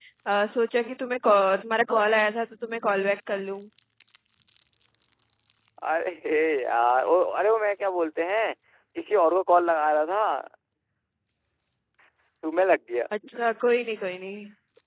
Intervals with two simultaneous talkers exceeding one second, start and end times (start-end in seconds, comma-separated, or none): none